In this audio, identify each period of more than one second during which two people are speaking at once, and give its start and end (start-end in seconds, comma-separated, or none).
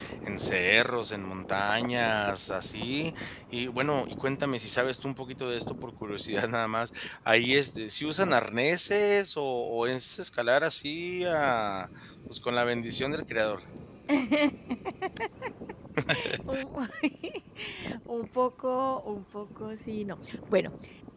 none